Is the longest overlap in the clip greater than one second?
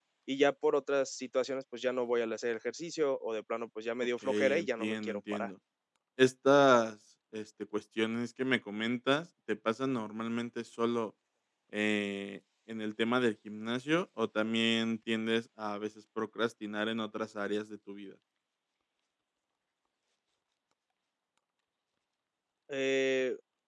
Yes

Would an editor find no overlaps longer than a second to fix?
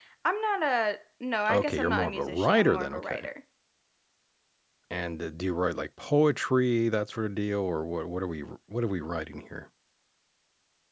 No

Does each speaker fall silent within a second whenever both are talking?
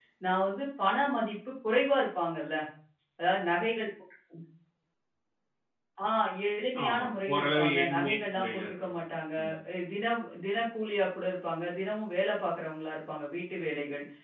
No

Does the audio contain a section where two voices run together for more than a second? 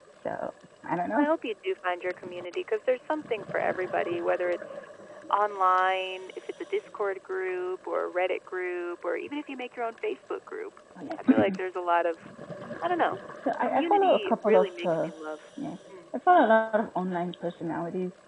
Yes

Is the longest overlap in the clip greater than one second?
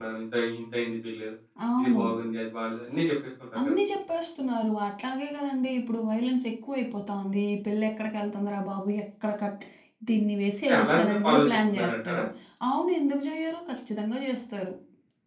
Yes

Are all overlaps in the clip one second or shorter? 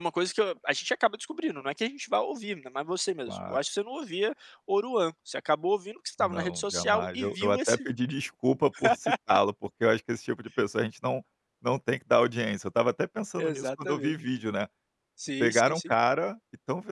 No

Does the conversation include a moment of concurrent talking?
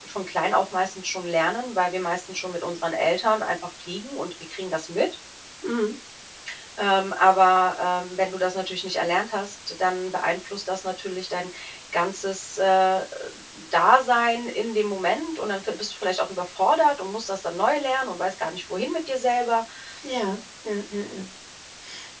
No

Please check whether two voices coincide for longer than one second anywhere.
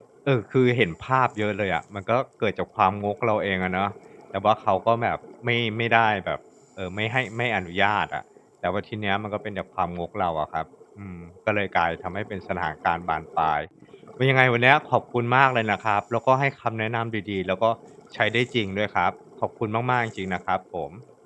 No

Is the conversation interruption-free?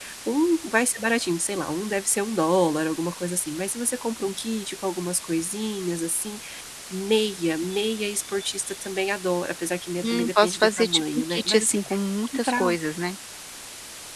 No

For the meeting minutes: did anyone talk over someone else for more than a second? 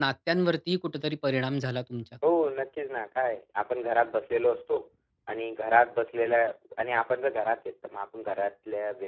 No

